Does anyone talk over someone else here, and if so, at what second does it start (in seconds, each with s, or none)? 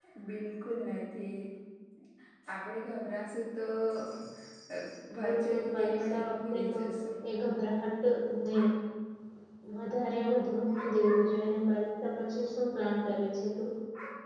5.2 s